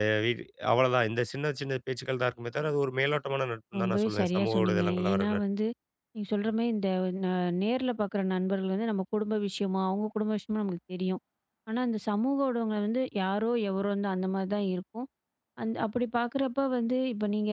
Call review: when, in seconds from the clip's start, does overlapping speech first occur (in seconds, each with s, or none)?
3.7 s